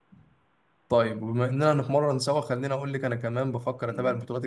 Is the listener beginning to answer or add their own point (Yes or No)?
No